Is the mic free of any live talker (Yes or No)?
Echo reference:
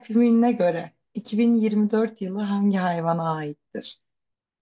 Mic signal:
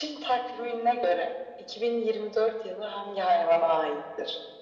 Yes